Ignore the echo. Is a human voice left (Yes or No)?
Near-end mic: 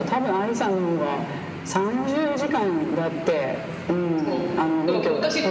Yes